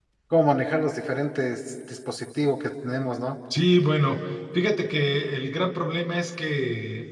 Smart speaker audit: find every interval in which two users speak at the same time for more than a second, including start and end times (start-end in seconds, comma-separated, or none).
none